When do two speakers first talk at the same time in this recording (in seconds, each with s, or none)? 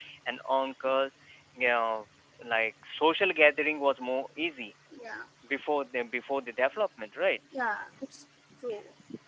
none